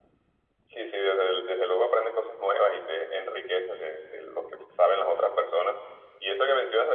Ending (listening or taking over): listening